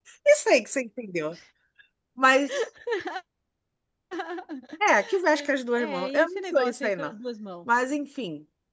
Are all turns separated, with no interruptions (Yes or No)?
No